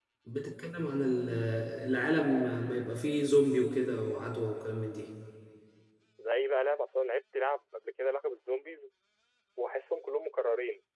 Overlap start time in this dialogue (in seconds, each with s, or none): none